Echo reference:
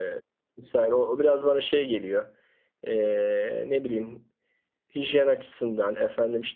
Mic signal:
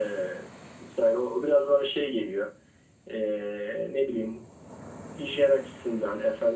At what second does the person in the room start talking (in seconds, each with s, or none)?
none